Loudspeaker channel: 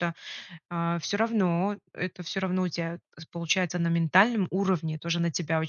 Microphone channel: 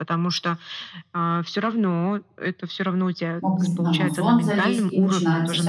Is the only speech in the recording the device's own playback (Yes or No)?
No